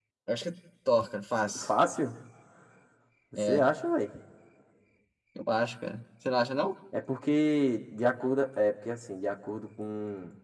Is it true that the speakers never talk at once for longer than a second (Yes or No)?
Yes